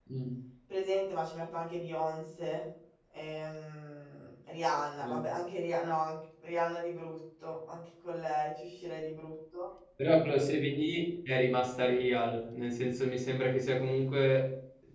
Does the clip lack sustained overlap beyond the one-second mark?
Yes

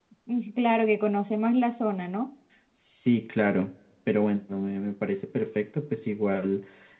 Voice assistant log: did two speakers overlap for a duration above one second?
No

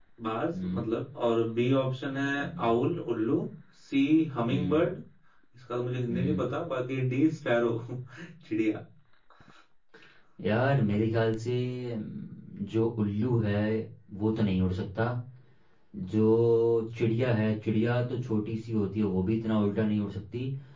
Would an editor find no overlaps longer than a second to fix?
Yes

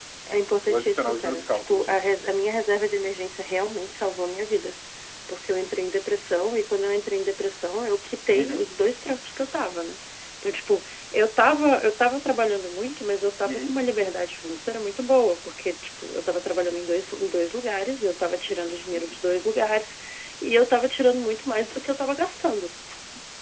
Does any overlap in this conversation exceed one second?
Yes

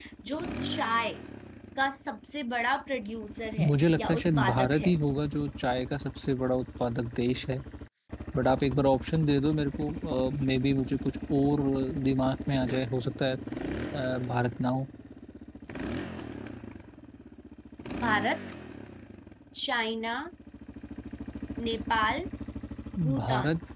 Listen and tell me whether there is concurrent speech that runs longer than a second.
Yes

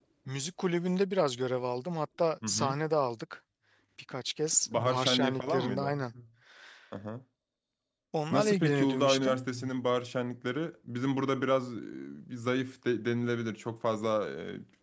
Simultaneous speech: Yes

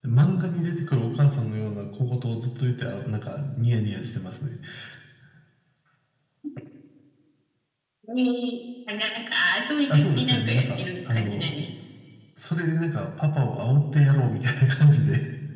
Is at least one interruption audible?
Yes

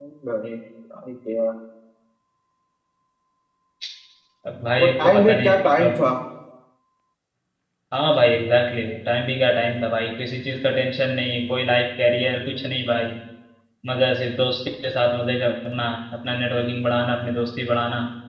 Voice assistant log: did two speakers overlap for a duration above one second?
Yes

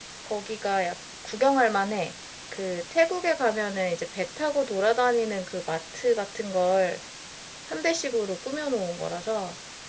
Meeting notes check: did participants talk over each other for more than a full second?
No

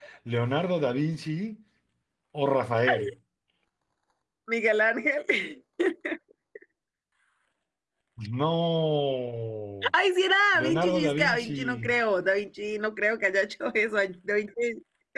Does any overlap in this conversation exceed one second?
Yes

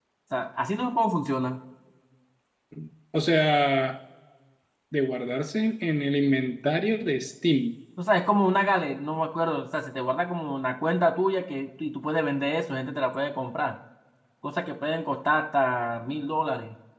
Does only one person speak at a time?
Yes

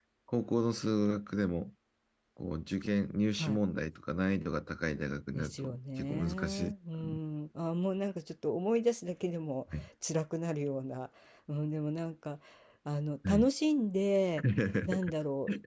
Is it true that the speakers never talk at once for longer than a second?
No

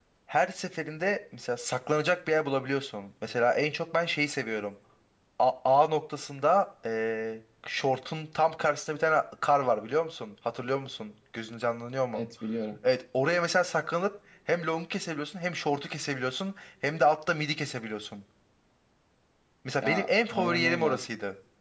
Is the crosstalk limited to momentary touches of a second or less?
No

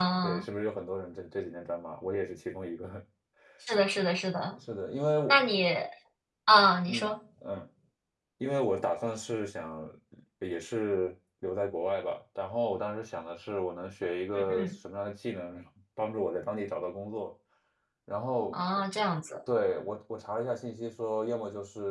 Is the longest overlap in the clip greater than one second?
No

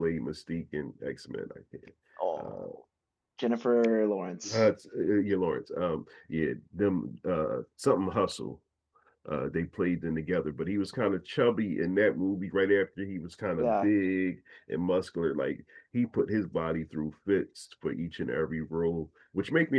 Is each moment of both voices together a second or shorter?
Yes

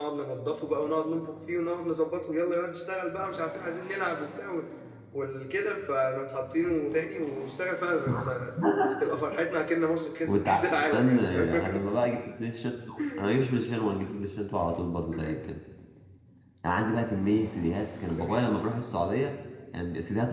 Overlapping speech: Yes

